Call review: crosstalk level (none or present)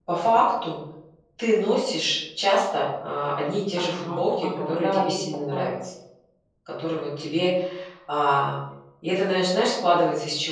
present